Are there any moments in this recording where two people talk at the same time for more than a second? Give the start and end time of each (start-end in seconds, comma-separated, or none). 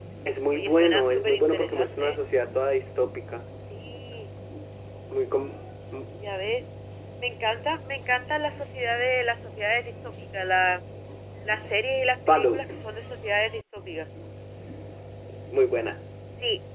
0.5-2.2